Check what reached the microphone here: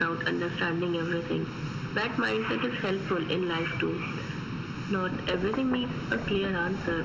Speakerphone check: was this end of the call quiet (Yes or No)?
Yes